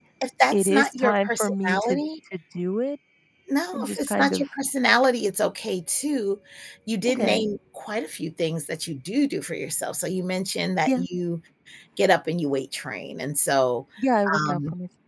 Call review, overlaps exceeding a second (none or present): present